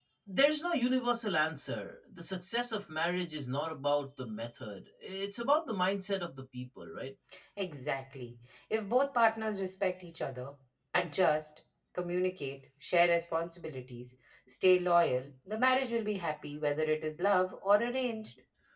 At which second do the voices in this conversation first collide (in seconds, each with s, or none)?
none